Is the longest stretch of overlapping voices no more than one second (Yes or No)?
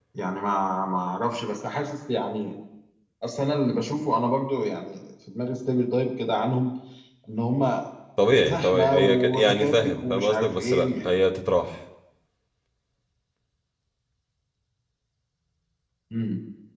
No